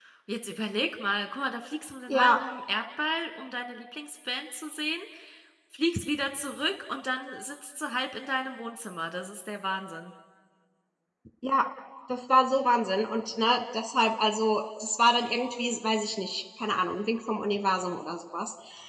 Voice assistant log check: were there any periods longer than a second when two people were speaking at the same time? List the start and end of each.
none

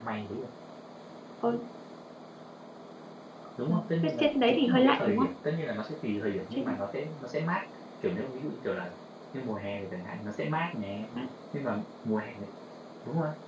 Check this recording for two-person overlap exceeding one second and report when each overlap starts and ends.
3.7-5.3

